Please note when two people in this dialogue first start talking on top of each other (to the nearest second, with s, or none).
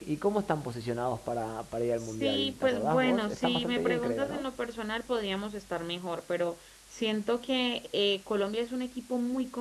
2 s